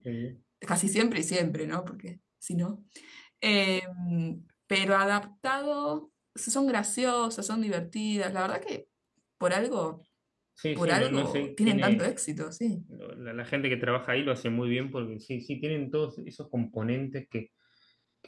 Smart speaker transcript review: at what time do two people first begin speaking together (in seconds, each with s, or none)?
10.8 s